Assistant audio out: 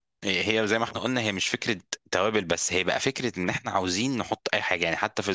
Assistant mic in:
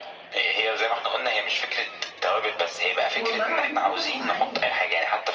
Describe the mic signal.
both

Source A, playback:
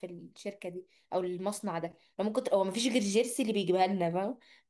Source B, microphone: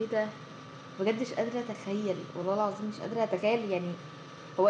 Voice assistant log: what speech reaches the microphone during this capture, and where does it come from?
user only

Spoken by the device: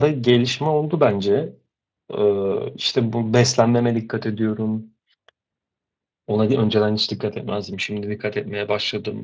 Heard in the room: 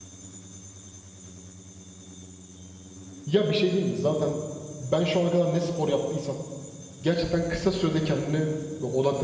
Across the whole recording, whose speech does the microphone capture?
user only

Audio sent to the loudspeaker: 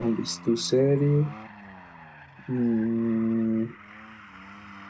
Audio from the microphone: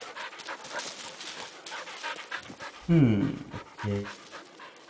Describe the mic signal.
user only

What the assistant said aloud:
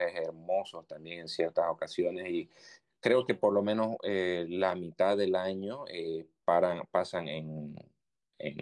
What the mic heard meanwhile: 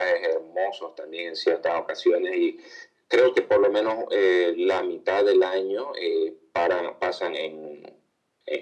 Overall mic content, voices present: echo only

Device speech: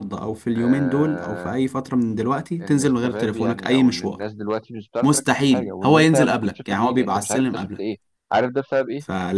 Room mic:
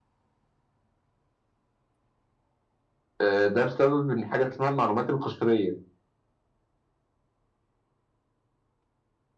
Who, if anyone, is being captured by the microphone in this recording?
user only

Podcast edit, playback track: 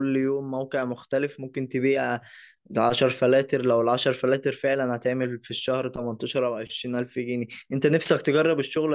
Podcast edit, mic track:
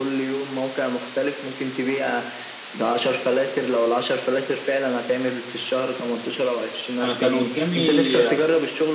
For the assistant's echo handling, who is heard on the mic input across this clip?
both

